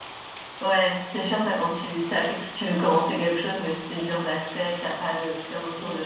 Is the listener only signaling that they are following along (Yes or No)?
No